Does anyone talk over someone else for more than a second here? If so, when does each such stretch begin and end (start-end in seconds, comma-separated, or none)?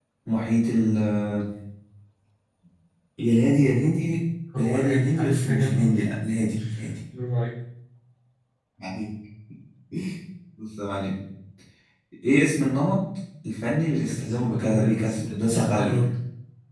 4.6-5.9, 14.1-15.9